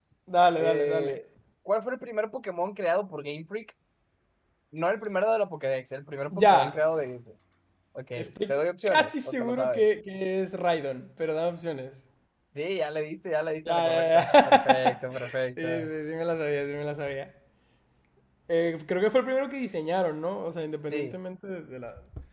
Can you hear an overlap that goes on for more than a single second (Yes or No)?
Yes